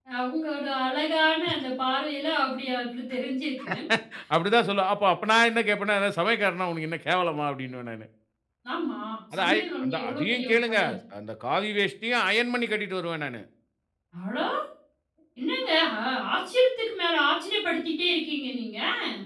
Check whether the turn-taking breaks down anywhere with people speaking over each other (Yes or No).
Yes